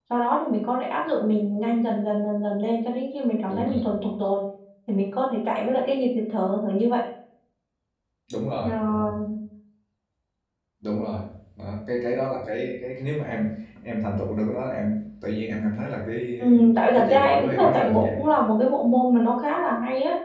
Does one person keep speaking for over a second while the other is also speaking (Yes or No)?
Yes